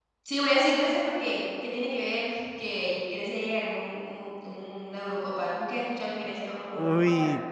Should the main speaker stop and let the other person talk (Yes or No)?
Yes